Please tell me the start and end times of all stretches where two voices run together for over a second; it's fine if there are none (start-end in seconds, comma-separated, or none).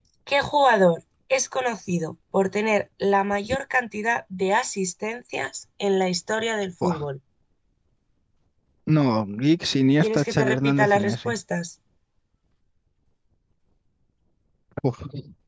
10.0-11.3